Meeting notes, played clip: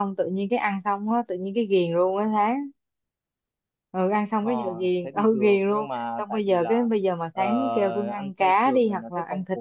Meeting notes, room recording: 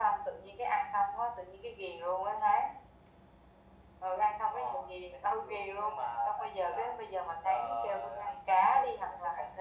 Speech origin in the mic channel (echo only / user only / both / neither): echo only